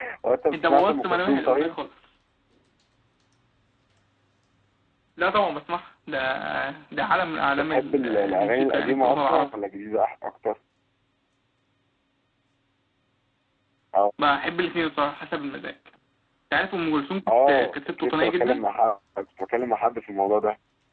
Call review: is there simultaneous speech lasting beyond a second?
Yes, from 0.5 s

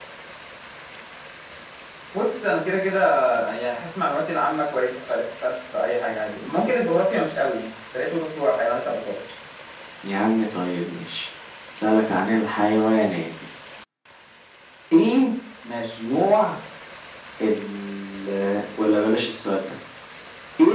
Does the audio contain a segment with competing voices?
No

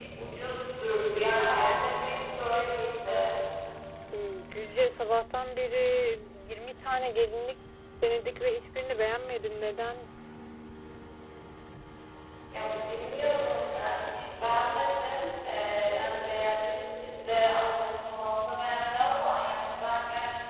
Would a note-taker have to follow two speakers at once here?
No

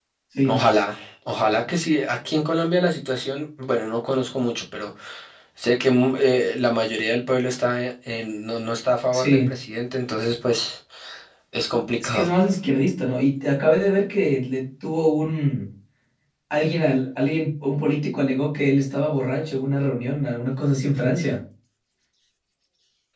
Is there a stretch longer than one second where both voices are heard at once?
No

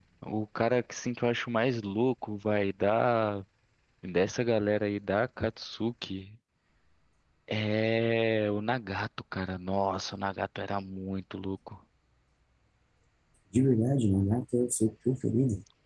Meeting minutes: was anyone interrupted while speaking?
No

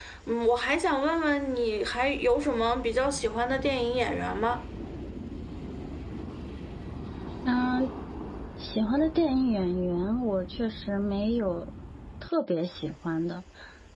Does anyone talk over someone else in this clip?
No

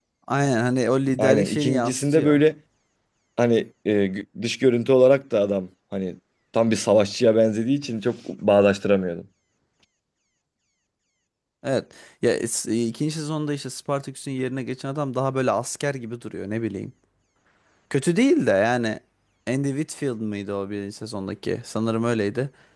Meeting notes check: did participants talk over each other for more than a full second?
Yes, from 1.2 s

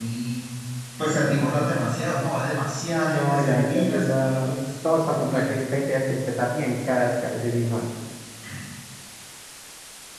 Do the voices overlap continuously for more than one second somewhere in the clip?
Yes, from 3.1 s

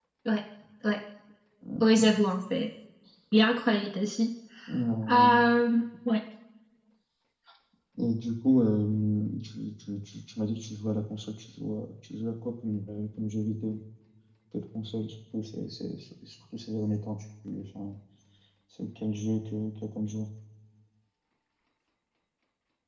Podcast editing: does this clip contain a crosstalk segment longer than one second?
No

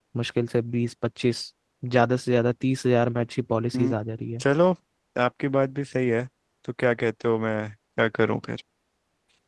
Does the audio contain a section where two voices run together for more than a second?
No

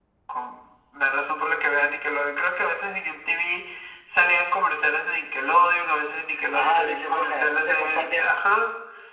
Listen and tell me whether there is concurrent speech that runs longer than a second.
Yes, from 6.5 s

